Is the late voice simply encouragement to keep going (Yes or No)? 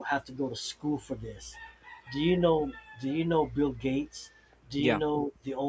Yes